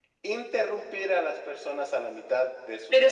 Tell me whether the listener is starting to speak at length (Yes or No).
Yes